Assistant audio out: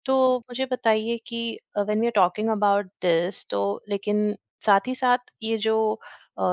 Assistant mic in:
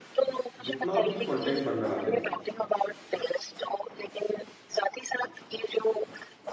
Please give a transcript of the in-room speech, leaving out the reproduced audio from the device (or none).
जितना भी कंटेंट बन रहा है